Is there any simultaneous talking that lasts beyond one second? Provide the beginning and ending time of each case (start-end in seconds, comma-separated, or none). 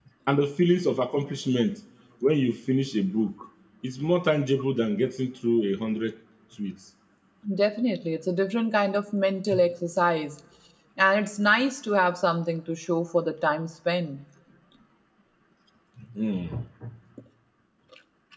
none